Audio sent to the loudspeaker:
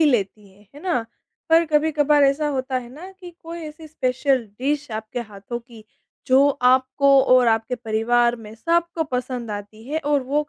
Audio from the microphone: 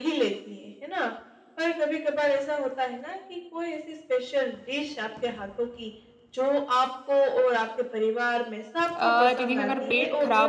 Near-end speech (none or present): present